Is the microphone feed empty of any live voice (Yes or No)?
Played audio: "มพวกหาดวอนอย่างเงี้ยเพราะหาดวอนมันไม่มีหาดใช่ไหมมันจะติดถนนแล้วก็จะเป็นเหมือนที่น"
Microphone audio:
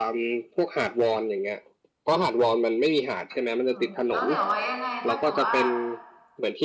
No